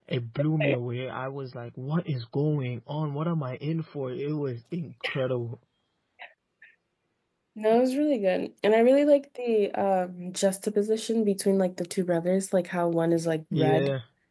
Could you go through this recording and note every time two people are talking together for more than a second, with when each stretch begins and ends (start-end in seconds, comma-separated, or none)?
none